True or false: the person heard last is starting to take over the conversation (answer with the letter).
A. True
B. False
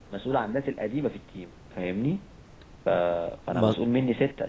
B